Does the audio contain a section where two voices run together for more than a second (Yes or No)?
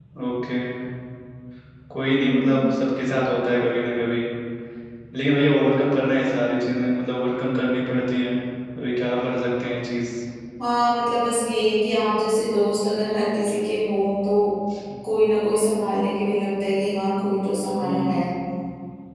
No